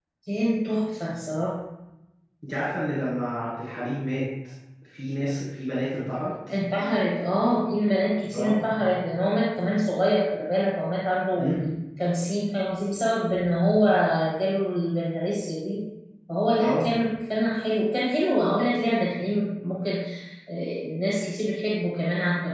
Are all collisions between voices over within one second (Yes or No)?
Yes